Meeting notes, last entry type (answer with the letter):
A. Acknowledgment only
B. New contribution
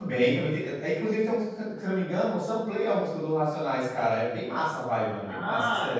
B